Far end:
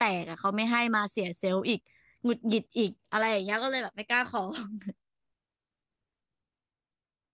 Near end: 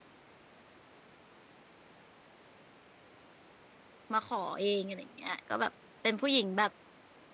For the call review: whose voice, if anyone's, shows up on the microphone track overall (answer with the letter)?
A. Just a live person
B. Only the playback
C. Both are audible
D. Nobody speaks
A